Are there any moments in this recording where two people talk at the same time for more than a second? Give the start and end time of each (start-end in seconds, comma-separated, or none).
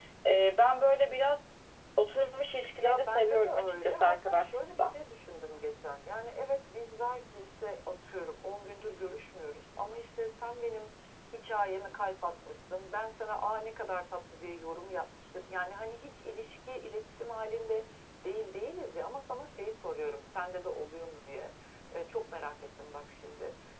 2.8-4.9